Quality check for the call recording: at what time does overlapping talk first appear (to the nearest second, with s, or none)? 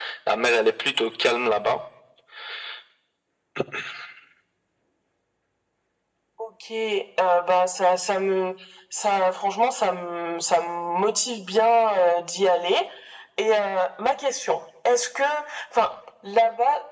none